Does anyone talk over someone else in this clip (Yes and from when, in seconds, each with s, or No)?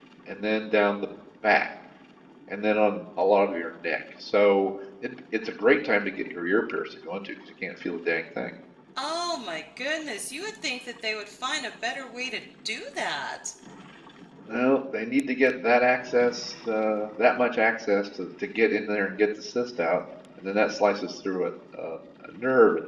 No